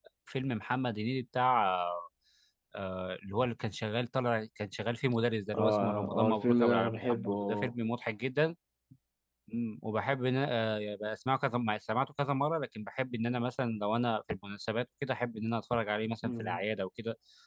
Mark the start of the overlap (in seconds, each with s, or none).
5.5 s